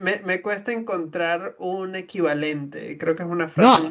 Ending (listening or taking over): taking over